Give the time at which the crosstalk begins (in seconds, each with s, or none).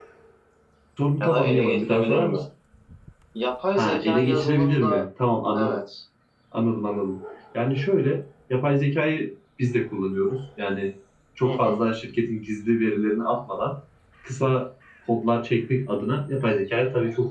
1.2 s